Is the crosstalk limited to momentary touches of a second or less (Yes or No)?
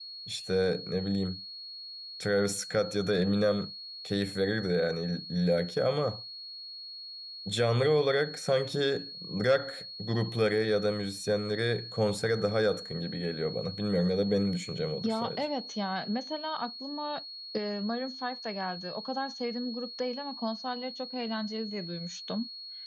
Yes